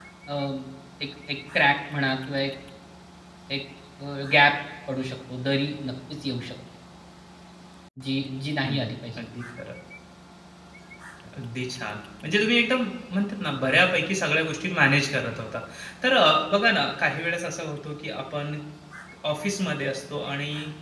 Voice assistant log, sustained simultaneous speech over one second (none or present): none